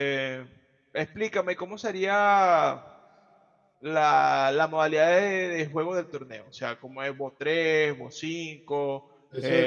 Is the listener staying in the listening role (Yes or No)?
No